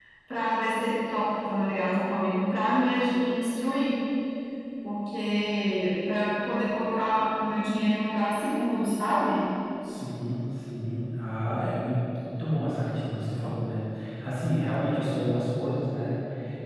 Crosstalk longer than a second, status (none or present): none